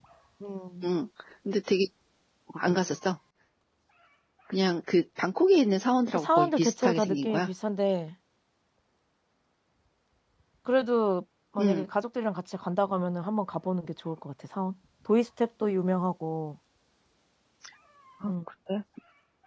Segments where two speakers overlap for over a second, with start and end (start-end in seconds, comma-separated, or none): 6.2-7.5